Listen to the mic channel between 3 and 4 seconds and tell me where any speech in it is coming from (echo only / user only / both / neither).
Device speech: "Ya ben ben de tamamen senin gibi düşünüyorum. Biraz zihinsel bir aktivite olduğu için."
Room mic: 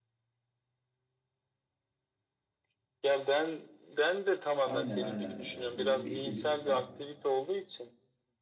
echo only